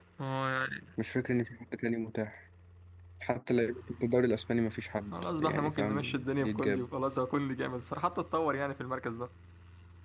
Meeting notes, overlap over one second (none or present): present